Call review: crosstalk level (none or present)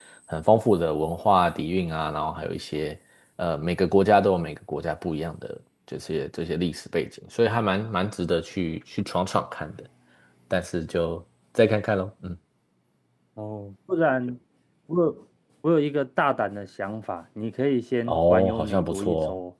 present